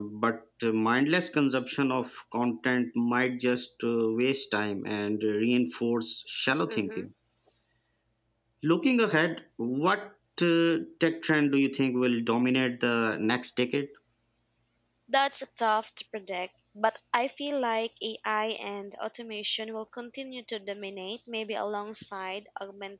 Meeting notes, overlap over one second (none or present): none